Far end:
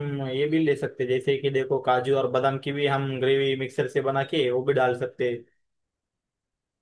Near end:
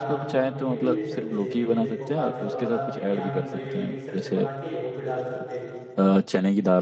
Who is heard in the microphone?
both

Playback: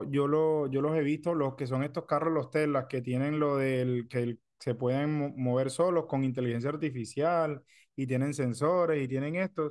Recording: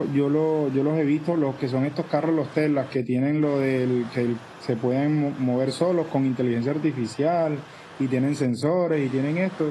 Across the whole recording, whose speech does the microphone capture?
echo only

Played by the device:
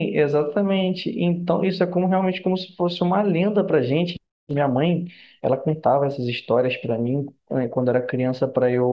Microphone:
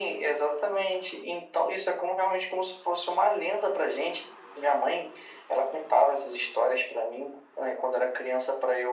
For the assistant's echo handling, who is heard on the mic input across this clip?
echo only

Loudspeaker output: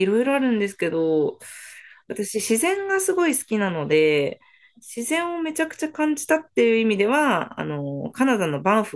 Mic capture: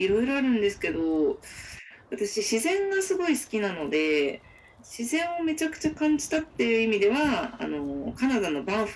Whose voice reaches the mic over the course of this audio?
echo only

